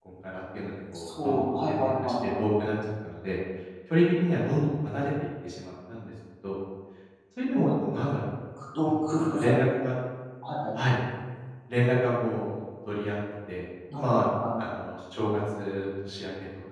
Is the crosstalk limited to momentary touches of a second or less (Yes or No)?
No